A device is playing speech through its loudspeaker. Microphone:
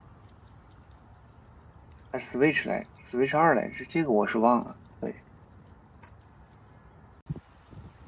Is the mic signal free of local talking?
No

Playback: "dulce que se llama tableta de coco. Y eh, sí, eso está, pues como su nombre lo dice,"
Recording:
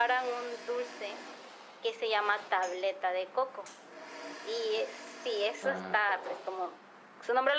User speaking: Yes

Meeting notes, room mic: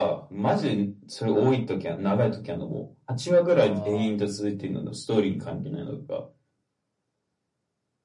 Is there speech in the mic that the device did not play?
Yes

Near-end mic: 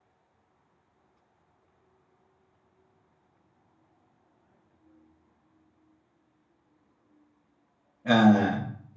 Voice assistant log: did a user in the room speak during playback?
Yes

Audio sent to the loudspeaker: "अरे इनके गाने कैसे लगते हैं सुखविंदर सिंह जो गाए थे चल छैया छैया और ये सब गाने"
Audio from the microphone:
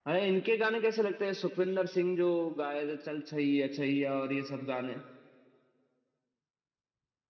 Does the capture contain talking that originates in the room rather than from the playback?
No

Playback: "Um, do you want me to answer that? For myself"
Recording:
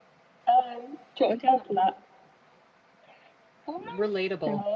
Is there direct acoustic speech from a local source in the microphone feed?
Yes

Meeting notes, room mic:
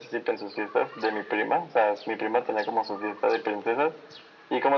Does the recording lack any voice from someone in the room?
Yes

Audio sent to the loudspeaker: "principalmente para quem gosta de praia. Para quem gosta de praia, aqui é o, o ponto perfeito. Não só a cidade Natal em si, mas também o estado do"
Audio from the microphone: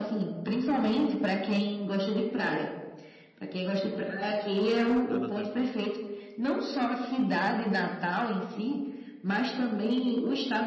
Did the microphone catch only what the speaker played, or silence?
No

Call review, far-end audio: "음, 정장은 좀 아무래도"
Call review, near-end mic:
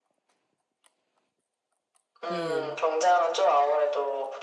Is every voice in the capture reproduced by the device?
No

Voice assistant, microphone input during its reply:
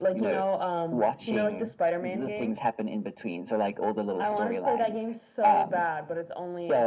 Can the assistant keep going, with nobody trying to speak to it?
Yes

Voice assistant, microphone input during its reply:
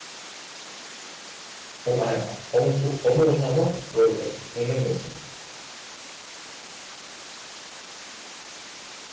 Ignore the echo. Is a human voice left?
Yes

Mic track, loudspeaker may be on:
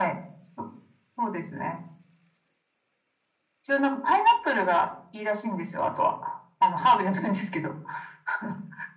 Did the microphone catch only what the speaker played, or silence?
Yes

